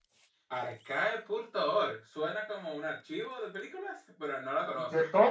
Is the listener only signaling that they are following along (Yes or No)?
No